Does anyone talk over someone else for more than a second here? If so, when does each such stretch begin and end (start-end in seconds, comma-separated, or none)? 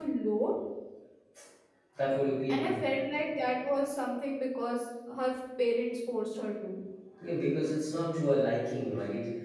none